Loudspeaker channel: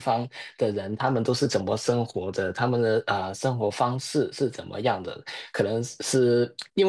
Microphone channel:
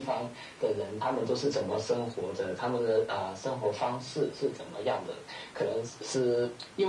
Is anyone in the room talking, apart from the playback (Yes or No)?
No